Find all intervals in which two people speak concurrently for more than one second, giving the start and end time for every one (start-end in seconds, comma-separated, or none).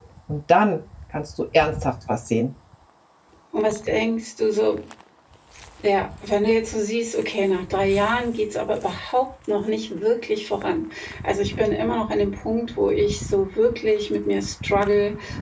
none